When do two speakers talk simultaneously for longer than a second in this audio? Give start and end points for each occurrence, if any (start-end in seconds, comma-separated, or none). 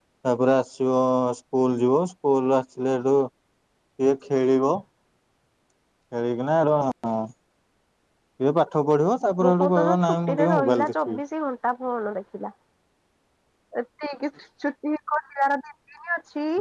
9.4-11.2